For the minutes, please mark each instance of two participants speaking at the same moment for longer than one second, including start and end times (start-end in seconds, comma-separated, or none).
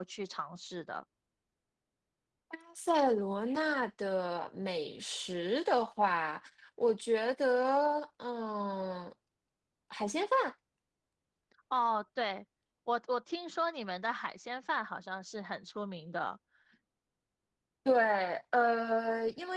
none